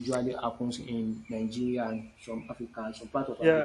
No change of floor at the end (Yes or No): No